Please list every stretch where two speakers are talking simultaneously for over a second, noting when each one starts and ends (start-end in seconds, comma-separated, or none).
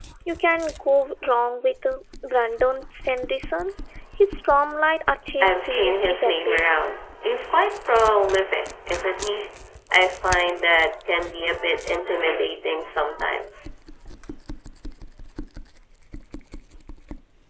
5.4-6.6